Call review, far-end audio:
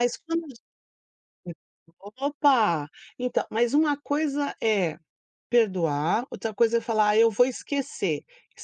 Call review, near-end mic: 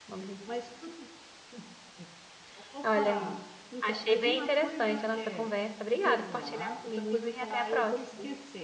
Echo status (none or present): present